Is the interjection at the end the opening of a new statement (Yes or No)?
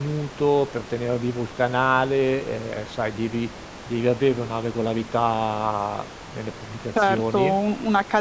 Yes